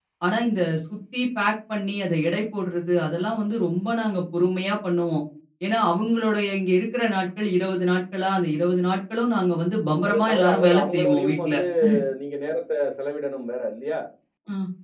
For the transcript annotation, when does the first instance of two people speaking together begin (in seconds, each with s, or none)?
10.0 s